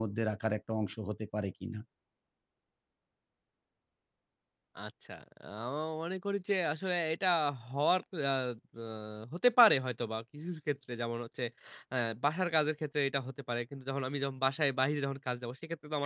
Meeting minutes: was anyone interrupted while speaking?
No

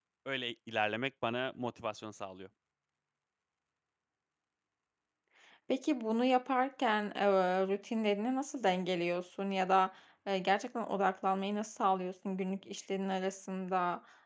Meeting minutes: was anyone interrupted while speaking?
No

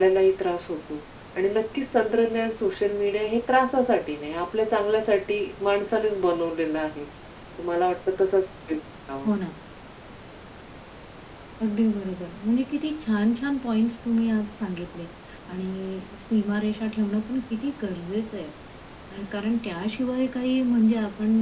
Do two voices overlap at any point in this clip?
No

